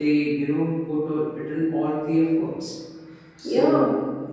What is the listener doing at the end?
listening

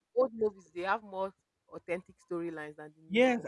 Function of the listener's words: taking over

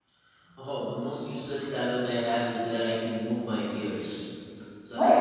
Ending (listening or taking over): listening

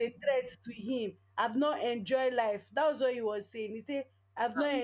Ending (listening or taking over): taking over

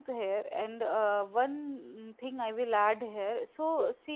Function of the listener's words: listening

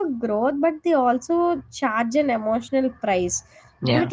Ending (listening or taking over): listening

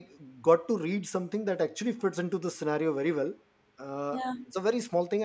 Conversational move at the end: listening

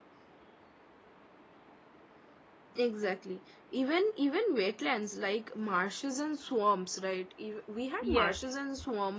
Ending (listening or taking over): listening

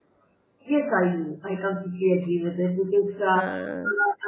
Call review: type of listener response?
listening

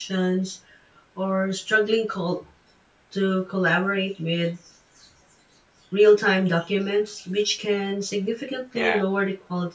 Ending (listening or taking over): listening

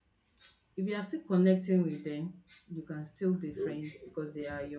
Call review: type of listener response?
listening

